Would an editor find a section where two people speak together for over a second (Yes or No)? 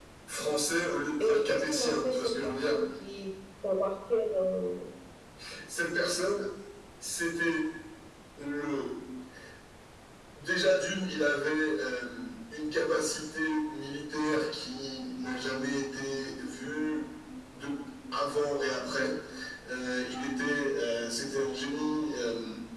Yes